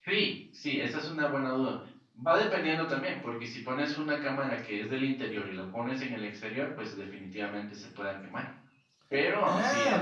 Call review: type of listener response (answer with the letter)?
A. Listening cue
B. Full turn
B